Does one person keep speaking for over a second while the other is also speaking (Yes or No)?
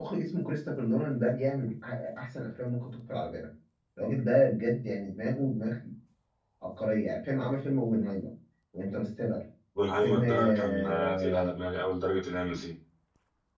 Yes